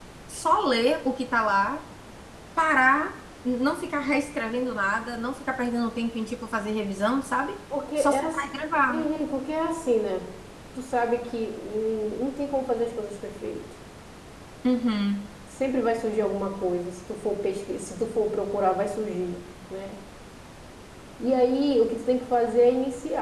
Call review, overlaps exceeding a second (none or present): none